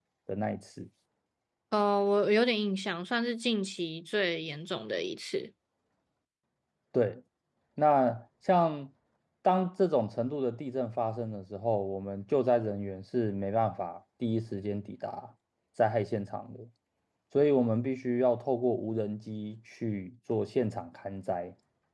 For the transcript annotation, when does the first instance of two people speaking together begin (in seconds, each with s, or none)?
none